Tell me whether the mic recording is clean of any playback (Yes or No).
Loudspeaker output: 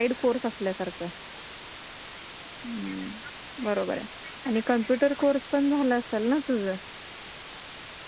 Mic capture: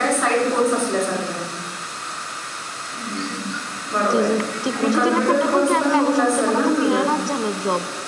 No